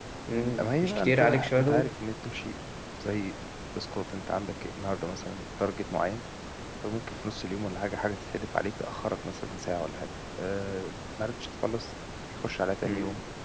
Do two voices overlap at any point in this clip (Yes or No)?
Yes